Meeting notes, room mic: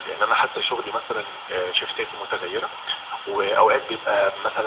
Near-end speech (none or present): none